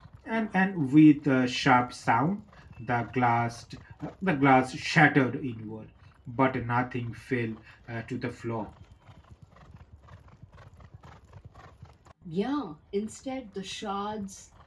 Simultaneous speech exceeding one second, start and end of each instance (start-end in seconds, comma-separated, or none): none